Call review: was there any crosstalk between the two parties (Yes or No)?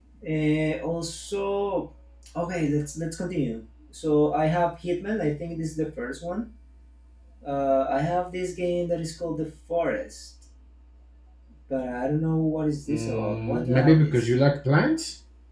Yes